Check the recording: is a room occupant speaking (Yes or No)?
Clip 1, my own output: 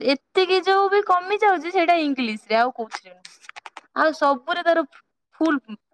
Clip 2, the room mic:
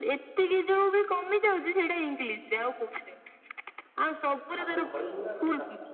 Yes